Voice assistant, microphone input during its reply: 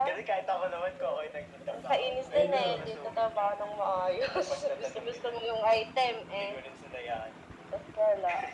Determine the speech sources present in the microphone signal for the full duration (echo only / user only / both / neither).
both